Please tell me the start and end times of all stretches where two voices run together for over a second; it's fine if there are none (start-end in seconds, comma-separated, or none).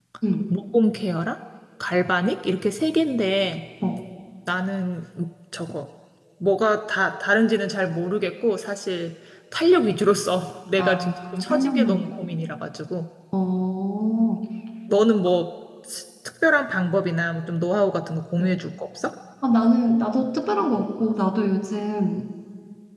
10.8-12.0